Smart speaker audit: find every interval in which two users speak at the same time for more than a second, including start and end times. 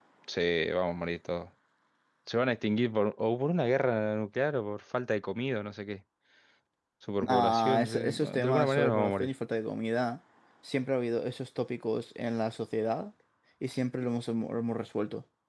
7.2-9.3

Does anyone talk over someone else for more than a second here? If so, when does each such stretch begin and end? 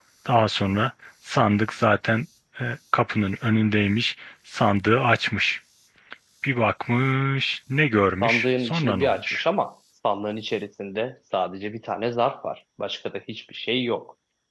8.2-9.4

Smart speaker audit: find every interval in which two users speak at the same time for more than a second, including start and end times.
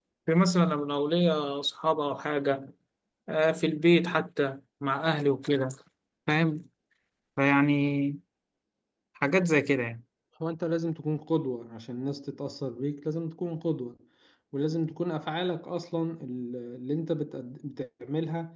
none

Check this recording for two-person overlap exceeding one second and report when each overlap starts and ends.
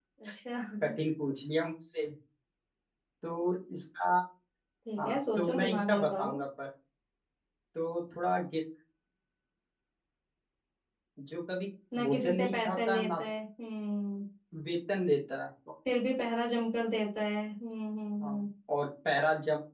5.0-6.4, 12.0-13.2

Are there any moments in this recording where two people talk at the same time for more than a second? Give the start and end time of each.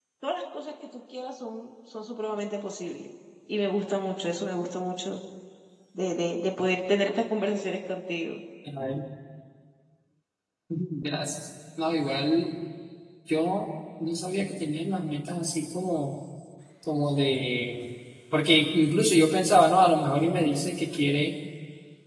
none

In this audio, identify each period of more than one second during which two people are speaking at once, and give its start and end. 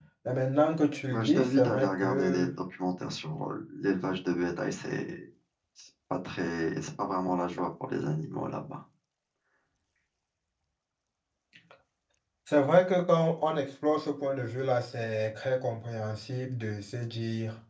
1.1-2.5

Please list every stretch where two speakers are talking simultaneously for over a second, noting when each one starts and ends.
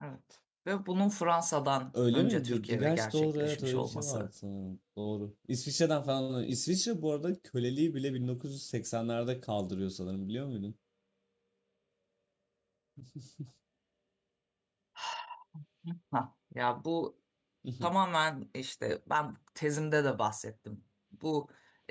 2.1-4.3

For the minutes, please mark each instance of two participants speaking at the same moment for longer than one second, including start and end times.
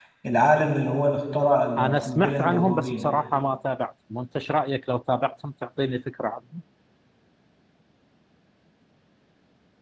1.8-3.1

